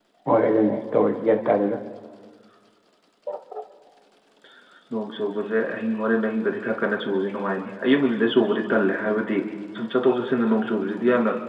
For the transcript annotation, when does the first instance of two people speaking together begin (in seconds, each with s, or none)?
none